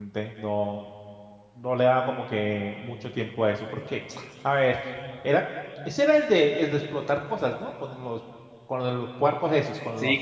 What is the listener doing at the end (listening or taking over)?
taking over